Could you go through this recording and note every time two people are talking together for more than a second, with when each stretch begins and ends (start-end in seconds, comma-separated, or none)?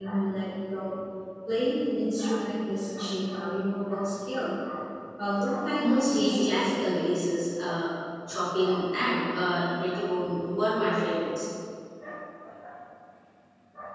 5.7-7.1